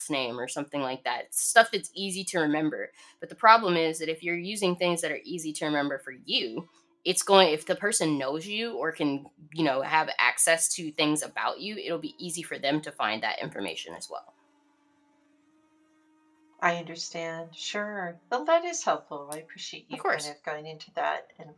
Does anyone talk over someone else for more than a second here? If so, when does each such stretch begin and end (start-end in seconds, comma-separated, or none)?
none